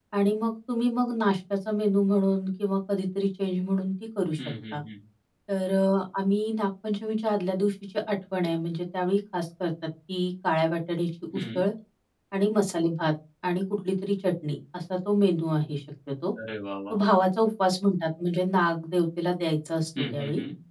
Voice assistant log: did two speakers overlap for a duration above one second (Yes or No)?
No